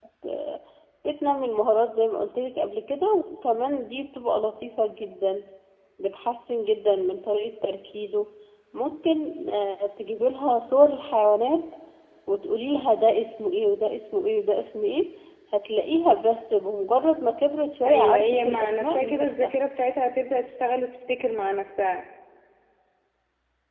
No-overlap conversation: No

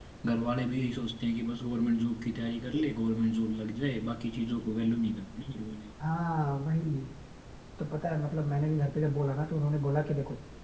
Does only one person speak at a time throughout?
Yes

